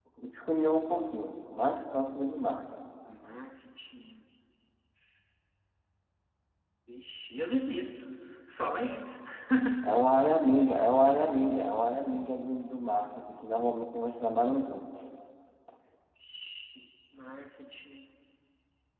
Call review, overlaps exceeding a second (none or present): none